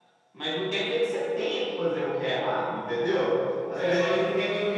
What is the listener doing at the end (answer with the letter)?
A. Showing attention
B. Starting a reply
A